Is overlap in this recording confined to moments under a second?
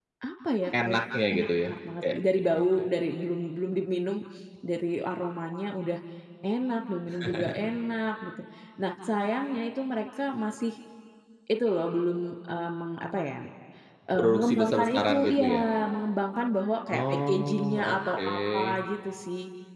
No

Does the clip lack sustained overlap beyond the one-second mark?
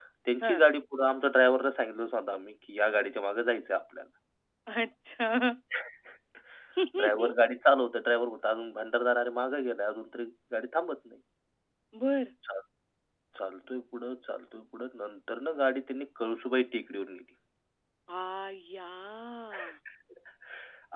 Yes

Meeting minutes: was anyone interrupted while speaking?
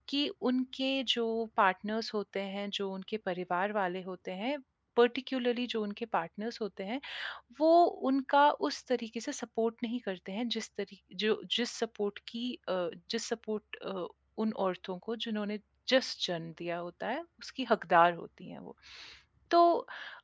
No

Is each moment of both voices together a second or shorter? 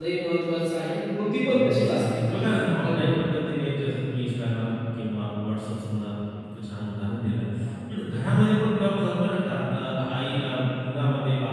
No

